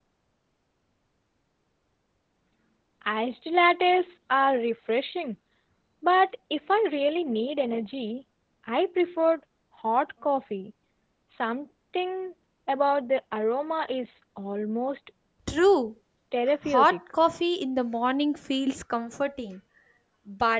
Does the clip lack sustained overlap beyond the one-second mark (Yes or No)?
Yes